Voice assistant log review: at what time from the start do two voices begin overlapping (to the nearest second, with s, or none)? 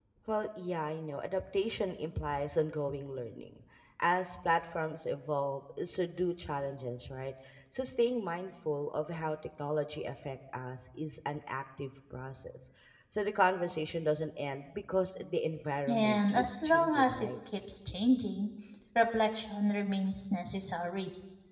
16 s